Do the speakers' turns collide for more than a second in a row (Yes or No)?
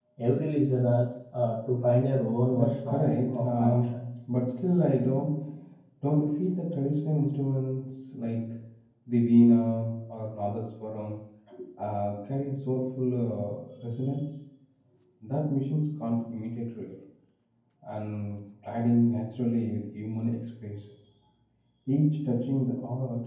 Yes